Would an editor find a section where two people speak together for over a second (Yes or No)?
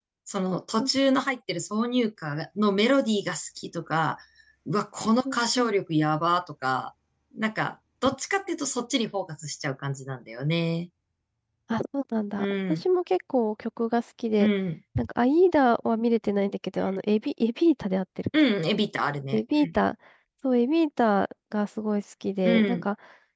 No